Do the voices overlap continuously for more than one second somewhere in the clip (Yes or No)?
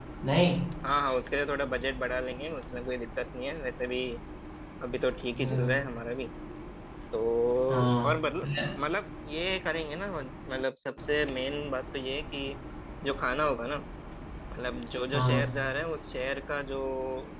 No